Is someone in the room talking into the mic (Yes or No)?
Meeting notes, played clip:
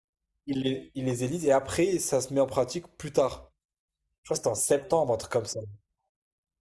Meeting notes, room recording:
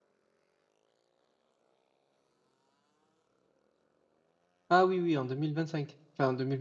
Yes